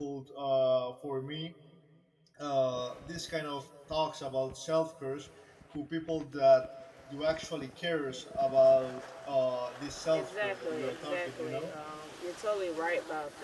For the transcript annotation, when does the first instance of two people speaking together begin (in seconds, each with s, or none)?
10.1 s